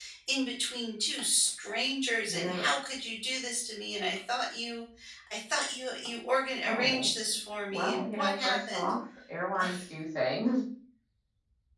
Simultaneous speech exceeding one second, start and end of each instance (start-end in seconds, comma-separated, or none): 7.7-8.9